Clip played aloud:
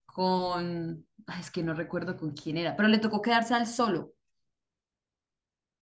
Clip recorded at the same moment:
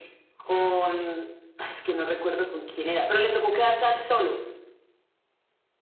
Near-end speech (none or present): none